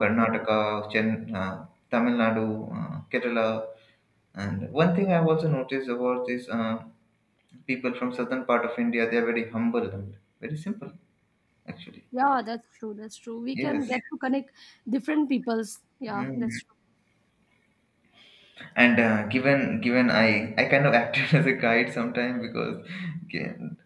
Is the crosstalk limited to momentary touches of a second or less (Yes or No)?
Yes